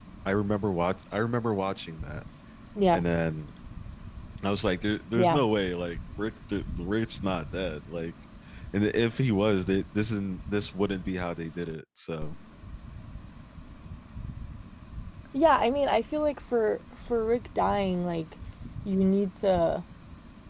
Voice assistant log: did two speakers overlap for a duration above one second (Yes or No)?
No